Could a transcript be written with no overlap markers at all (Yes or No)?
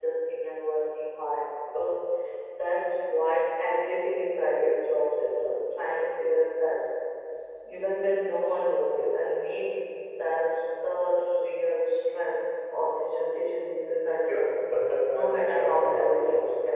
No